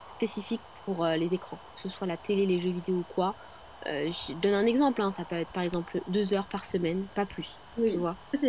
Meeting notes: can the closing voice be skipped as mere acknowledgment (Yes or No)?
No